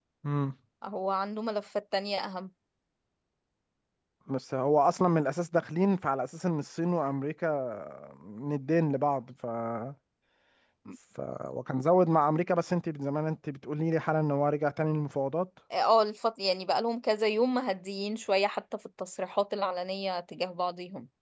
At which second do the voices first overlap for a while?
none

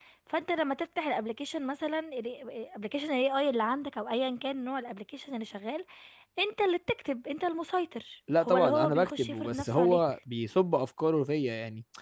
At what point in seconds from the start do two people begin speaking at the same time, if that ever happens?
8.3 s

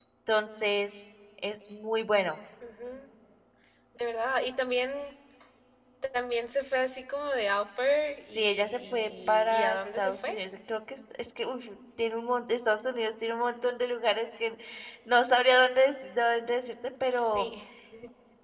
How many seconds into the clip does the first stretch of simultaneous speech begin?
8.3 s

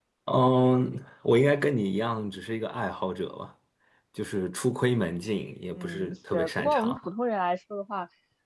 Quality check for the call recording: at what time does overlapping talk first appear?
5.7 s

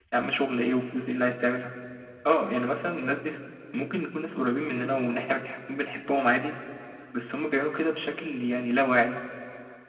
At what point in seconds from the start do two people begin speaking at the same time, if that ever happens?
none

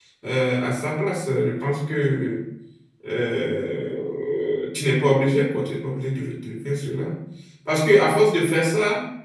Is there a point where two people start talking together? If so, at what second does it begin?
none

